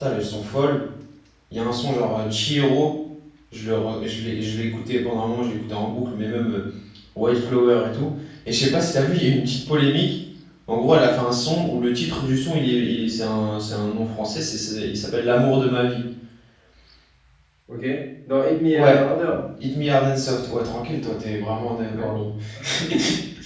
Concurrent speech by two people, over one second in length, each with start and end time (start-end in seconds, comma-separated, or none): none